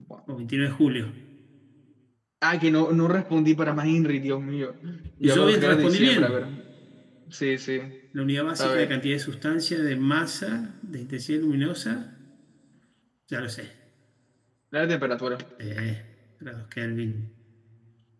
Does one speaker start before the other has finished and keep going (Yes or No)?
Yes